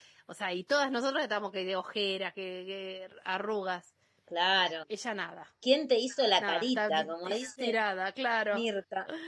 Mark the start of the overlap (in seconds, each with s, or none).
6.4 s